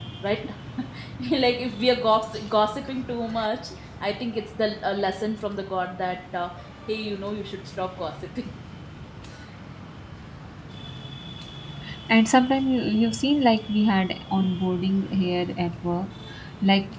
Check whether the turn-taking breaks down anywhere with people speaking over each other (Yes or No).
No